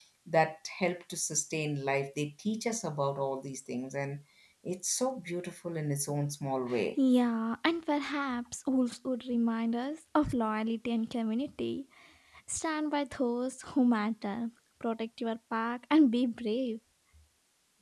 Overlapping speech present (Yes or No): No